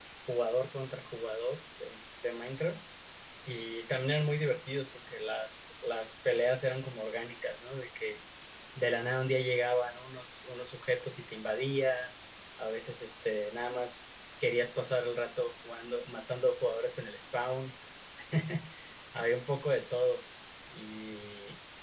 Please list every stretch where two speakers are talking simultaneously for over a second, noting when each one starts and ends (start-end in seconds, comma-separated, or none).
none